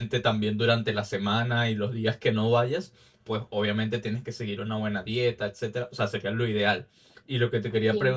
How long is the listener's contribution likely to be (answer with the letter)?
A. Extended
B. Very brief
B